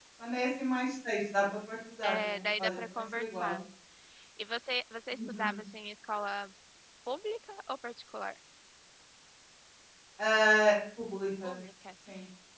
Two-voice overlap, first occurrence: 2.0 s

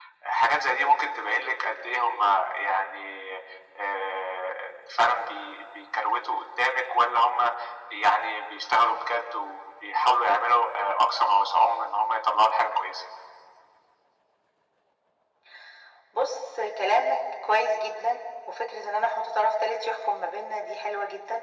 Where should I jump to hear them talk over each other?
none

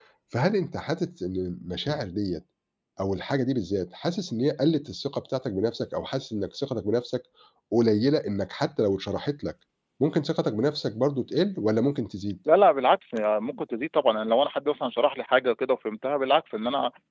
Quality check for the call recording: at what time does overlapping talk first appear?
none

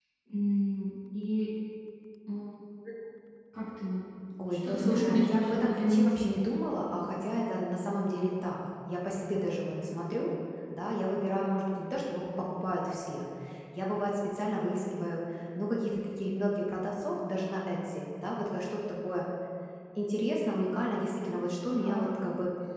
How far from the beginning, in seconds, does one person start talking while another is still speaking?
4.5 s

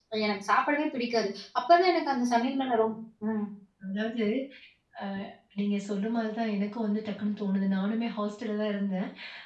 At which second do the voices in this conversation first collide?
none

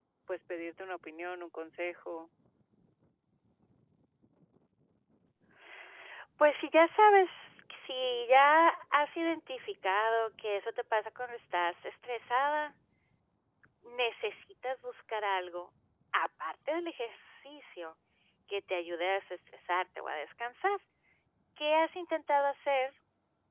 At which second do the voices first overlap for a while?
none

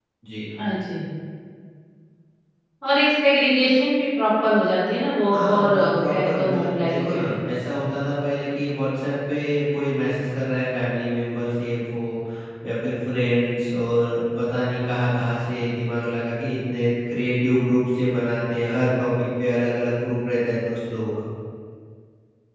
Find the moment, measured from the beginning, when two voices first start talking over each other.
5.3 s

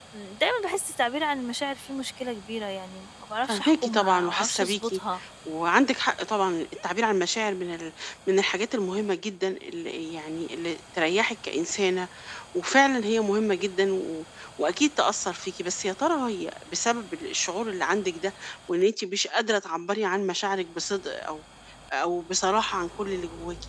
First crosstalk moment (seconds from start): 3.5 s

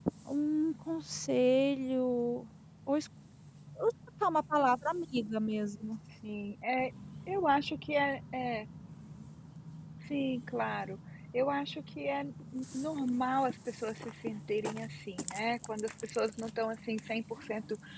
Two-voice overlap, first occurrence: none

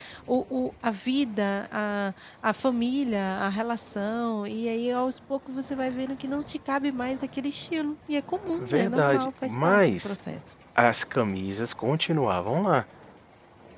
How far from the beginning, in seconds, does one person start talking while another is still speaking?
8.6 s

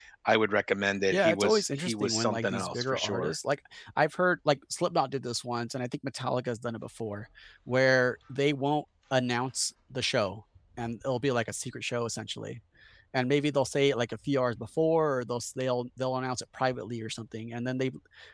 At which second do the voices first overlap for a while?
1.1 s

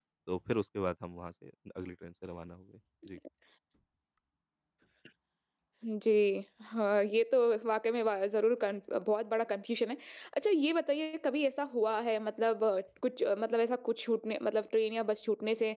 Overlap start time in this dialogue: none

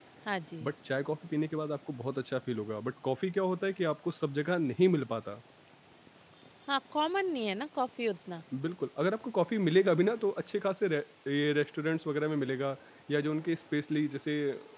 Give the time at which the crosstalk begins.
none

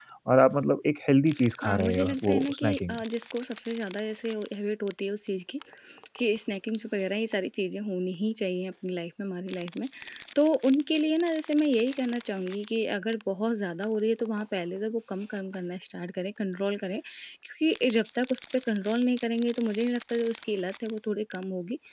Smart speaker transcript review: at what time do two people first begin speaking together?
1.6 s

